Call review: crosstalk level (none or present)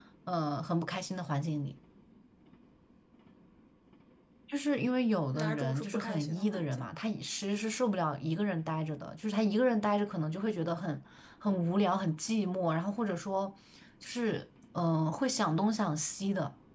present